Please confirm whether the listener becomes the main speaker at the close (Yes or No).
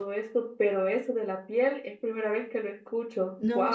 Yes